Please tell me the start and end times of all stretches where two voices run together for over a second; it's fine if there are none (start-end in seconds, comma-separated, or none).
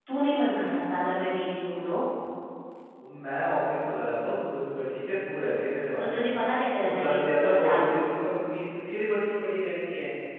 7.0-8.2